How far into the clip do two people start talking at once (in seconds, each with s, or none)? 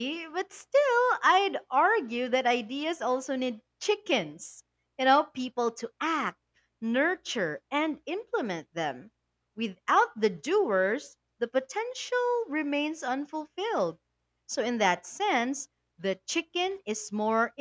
none